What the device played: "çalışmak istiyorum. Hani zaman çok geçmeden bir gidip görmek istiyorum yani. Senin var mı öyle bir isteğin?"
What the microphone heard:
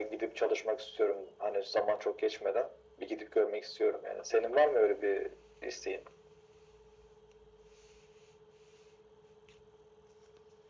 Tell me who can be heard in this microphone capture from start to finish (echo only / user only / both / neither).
echo only